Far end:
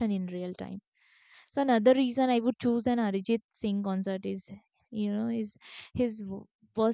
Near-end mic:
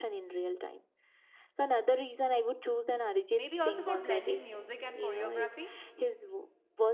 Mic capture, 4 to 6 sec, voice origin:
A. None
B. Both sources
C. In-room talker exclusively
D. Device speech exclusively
B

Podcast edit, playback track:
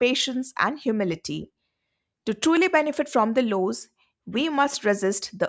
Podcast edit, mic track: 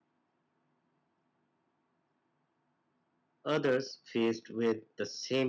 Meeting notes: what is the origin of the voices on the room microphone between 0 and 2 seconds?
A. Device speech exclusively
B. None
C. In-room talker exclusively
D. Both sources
B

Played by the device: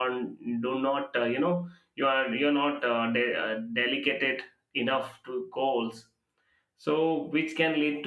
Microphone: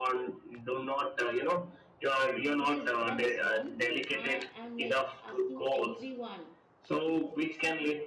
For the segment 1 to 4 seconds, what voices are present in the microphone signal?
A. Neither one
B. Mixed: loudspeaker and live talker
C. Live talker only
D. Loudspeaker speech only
B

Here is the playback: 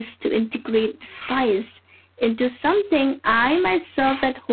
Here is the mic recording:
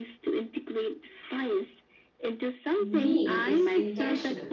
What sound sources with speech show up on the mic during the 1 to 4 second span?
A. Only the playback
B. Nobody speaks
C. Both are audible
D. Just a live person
C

